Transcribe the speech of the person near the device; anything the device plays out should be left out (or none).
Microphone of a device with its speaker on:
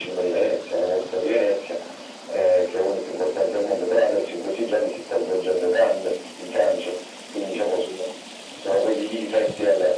none